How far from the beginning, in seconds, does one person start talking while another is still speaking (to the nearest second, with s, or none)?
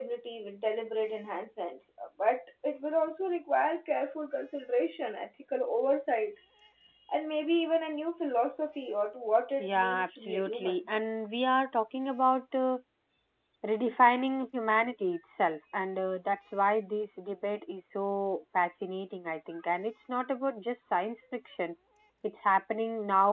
10 s